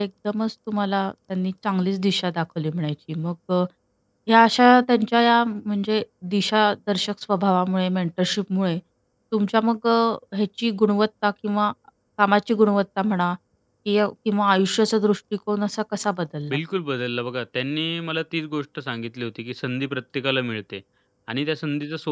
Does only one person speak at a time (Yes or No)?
Yes